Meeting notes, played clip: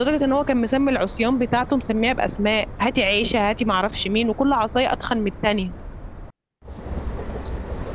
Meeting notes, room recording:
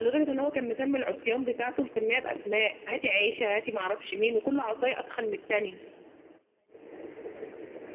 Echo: present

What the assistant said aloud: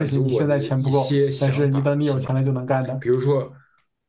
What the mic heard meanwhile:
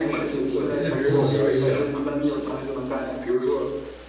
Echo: present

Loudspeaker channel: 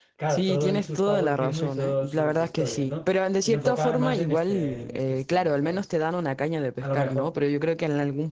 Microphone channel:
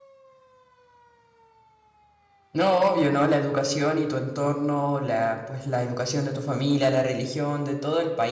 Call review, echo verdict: none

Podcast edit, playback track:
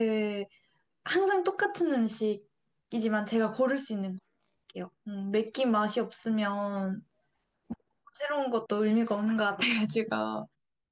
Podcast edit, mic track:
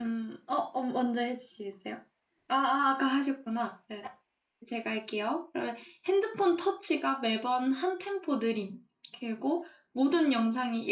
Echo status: none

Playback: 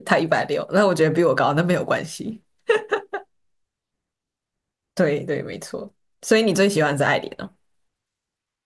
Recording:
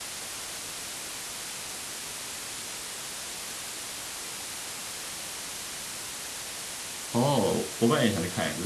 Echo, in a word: none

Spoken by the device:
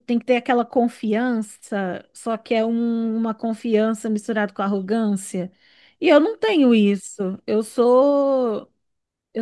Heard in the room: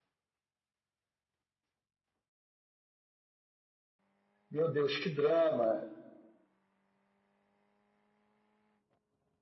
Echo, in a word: none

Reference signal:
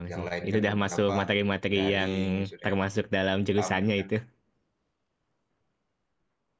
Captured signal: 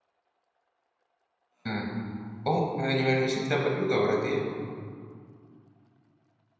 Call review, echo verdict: none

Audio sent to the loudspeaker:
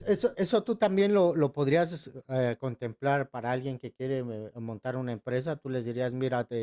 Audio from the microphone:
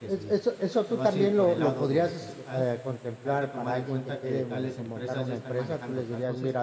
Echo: present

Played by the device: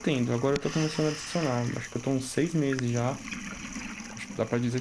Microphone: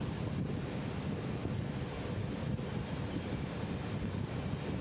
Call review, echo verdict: none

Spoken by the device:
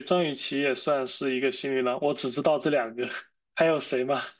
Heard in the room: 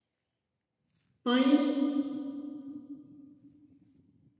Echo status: none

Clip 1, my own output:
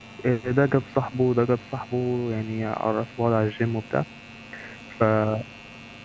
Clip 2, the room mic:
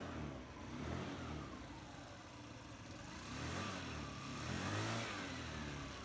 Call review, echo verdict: none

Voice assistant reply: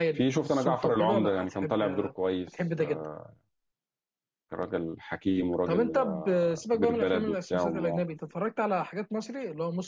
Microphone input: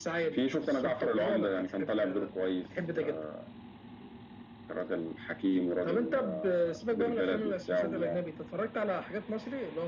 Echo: present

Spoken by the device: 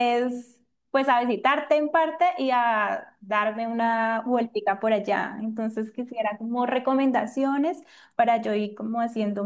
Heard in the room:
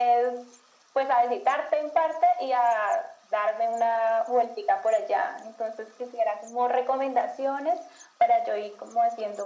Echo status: present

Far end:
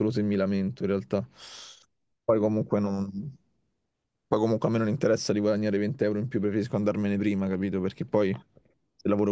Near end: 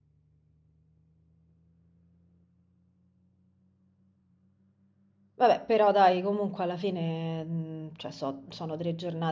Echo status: none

